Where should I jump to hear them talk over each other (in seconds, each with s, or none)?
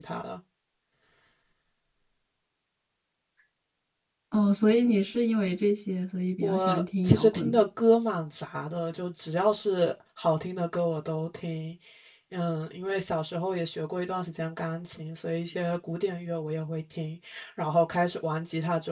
6.4 s